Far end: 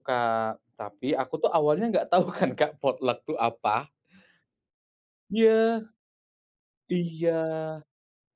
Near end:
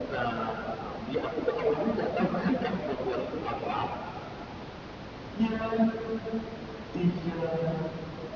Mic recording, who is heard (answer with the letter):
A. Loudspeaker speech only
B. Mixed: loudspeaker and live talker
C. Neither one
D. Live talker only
A